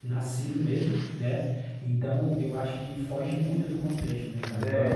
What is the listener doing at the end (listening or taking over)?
taking over